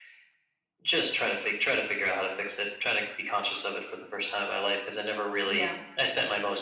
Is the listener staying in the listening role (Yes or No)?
Yes